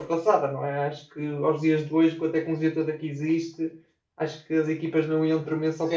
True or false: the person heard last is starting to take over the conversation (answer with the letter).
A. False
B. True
B